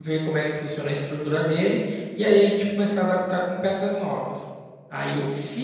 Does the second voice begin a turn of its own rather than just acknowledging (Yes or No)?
No